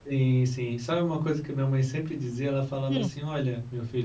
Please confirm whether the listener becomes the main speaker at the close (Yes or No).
No